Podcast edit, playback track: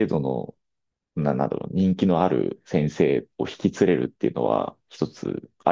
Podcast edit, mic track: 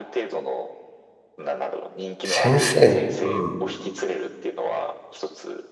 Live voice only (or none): 先生に、うん。